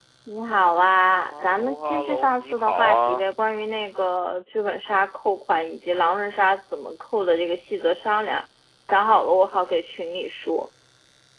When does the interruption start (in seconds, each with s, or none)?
1.3 s